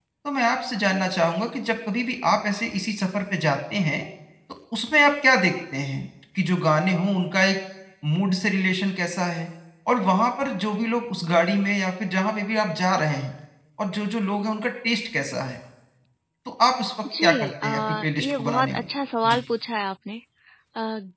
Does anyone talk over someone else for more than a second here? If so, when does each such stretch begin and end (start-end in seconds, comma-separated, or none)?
17.2-18.8